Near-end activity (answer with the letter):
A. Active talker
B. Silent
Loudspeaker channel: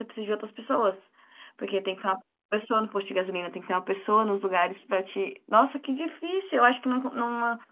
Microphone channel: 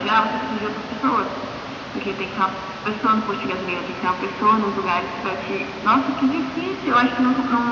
B